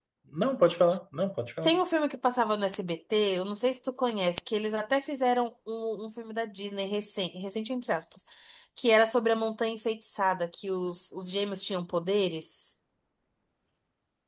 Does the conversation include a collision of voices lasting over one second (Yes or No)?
No